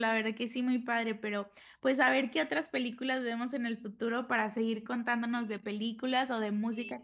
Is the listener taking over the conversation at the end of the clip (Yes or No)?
Yes